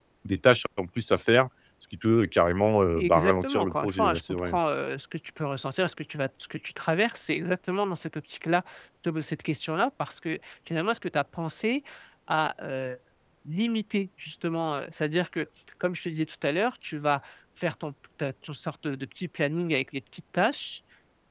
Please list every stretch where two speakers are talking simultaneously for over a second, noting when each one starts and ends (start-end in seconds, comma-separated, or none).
3.0-4.5